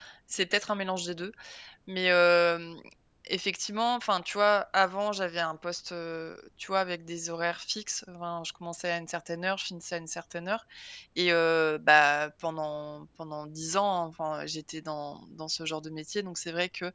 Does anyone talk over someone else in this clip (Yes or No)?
No